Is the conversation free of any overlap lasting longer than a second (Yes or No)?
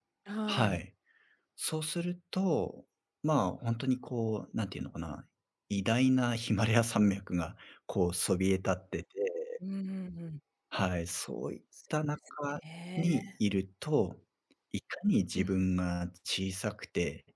Yes